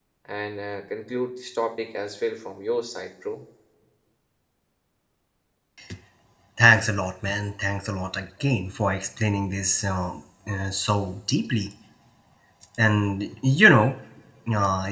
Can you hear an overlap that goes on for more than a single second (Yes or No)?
No